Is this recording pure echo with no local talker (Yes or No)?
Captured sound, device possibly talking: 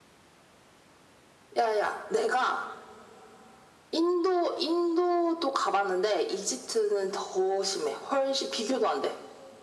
Yes